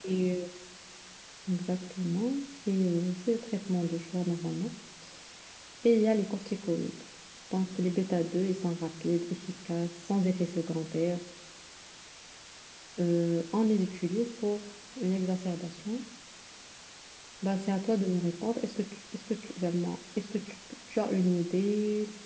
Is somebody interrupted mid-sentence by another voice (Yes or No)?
No